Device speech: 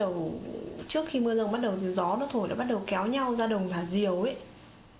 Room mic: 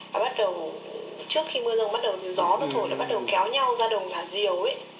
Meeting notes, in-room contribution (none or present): present